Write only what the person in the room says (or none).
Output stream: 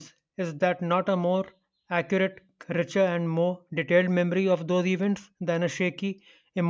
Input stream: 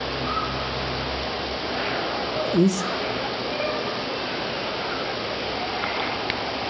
is